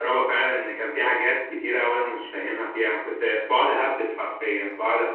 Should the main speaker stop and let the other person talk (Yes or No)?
No